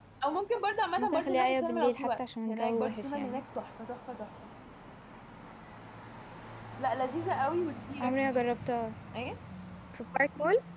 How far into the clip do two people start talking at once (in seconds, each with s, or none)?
1.0 s